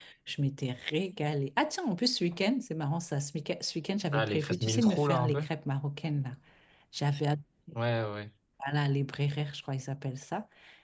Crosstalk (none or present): present